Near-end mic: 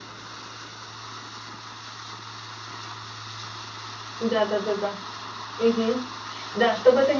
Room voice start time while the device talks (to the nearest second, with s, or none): 4 s